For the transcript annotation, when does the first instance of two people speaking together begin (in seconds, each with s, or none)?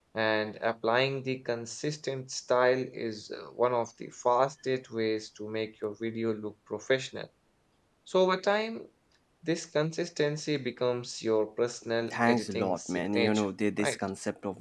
12.1 s